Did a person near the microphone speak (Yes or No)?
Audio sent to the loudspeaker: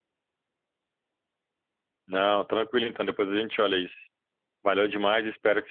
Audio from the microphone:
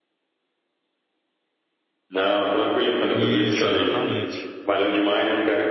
Yes